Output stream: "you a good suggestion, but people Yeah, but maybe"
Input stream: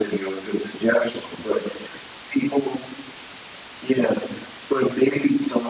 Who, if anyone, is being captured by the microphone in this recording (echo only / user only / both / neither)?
echo only